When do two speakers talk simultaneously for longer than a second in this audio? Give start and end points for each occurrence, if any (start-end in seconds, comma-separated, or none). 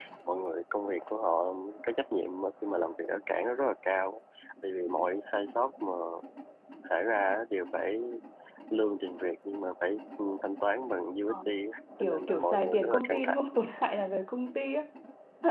12.0-13.4